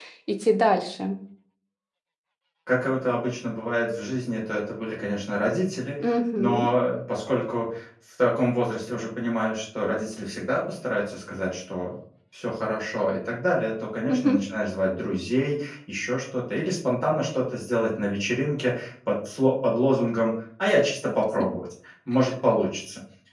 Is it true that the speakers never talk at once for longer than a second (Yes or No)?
Yes